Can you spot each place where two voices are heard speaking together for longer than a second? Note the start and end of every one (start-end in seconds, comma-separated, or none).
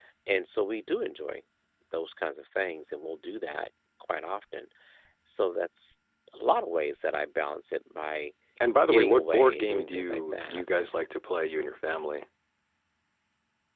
8.9-10.6